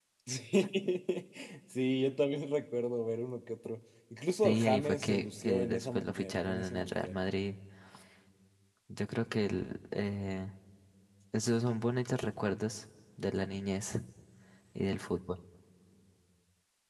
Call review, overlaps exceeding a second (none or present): present